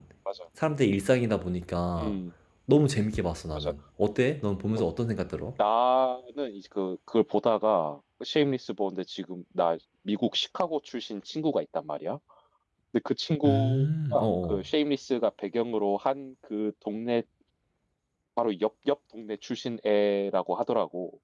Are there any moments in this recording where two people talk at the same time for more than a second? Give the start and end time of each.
13.4-14.7

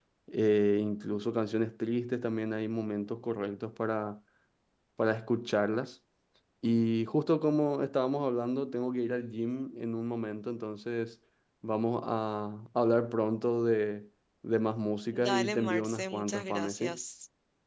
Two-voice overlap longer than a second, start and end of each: 15.1-17.0

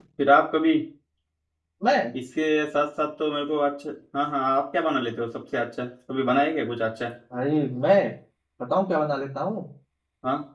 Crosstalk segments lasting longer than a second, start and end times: none

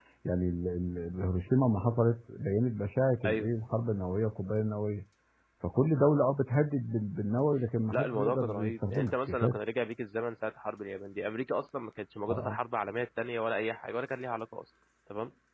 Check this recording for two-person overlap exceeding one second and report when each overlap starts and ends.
7.9-9.6

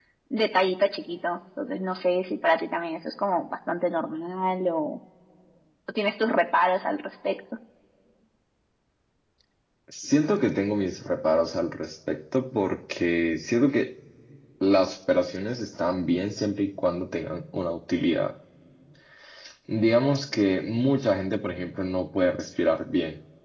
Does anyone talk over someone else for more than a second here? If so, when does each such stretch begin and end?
none

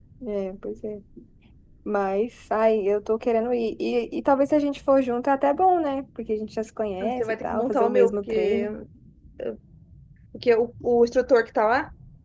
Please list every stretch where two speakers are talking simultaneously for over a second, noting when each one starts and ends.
7.0-8.6

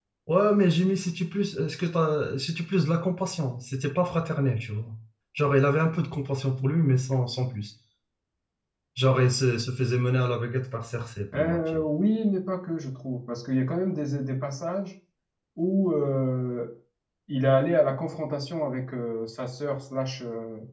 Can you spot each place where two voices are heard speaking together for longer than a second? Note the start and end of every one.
none

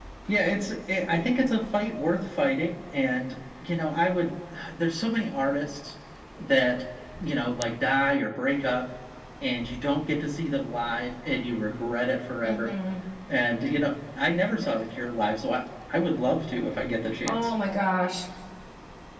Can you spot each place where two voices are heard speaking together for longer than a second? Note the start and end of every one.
none

